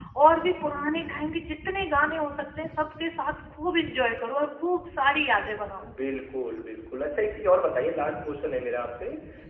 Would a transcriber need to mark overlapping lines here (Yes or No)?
No